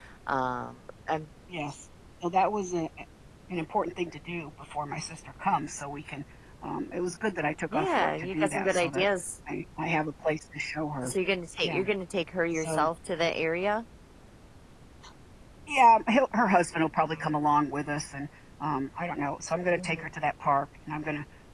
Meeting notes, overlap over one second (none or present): present